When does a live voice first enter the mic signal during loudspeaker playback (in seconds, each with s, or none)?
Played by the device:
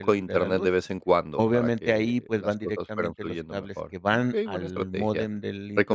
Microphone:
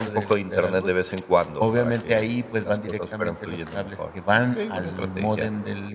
none